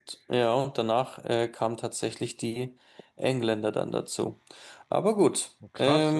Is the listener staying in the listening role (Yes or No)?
No